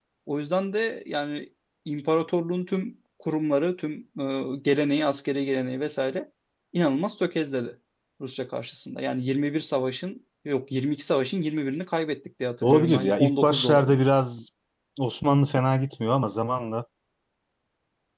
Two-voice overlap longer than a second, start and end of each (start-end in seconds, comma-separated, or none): 12.6-14.0